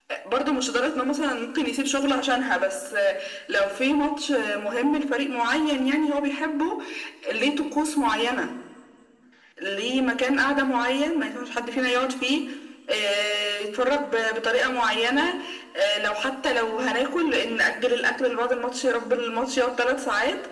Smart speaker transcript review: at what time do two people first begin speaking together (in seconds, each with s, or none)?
none